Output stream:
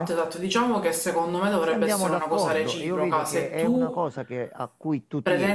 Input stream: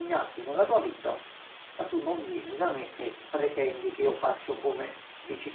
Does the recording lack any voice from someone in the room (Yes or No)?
No